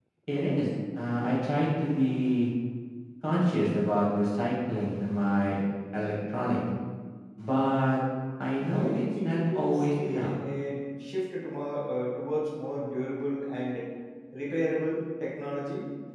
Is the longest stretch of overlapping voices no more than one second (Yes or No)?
No